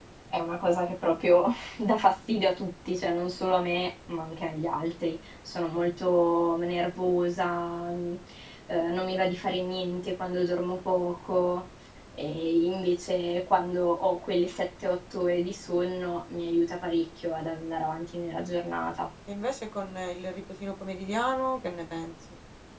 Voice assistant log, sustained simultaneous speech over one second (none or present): none